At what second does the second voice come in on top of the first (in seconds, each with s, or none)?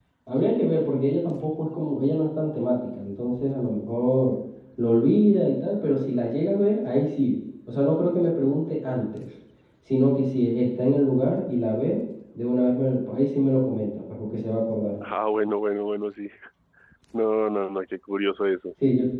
none